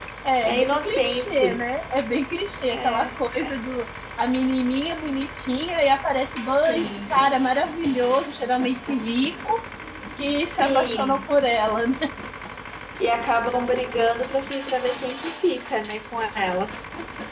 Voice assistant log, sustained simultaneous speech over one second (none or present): present